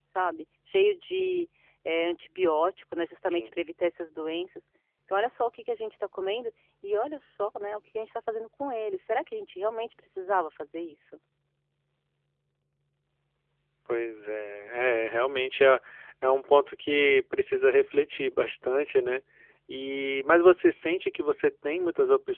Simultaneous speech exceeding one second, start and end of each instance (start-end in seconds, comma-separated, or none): none